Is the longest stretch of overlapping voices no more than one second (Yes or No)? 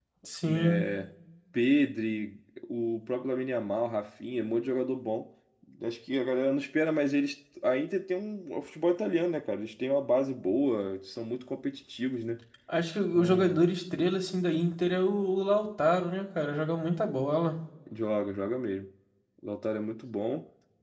Yes